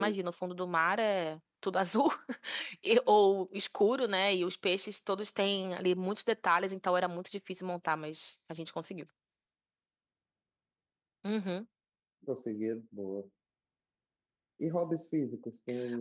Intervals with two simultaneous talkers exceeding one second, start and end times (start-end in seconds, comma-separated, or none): none